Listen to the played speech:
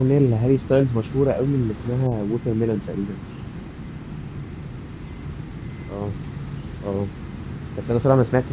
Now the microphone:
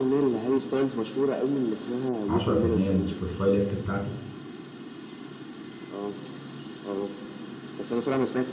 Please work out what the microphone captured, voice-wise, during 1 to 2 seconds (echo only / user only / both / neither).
echo only